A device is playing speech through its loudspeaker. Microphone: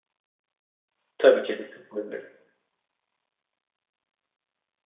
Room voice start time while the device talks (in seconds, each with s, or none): 1.2 s